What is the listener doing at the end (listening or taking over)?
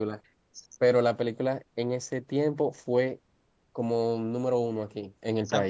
taking over